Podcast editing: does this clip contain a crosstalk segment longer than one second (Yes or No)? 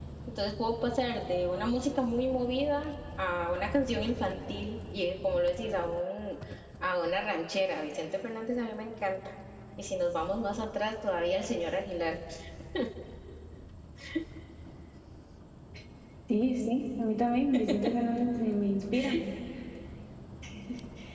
No